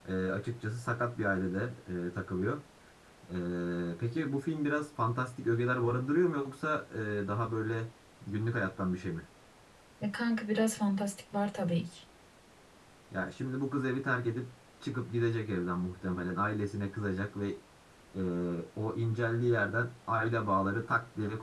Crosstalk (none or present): none